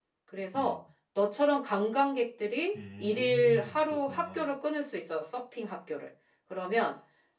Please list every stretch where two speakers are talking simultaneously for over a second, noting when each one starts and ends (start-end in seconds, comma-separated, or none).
2.7-4.5